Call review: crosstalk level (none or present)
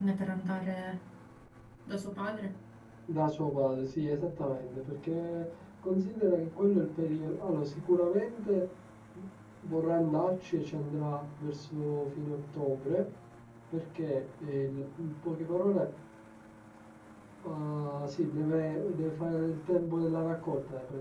none